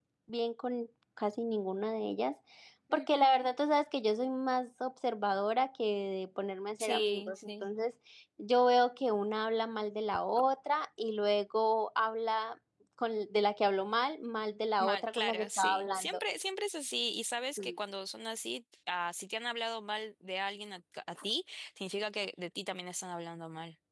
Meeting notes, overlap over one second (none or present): present